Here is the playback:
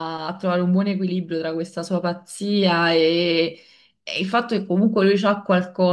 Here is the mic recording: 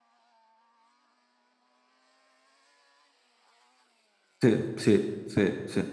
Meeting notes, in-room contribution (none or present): present